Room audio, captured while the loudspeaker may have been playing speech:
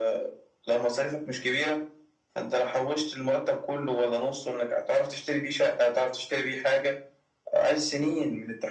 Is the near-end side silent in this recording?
Yes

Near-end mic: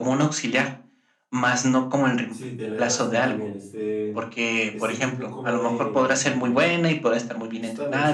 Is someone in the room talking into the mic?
Yes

